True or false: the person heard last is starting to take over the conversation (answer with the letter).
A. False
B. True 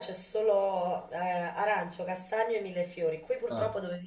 A